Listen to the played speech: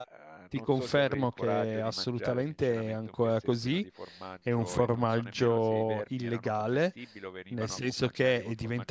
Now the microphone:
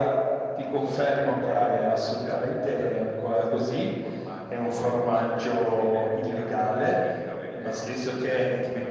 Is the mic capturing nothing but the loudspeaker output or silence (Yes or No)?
Yes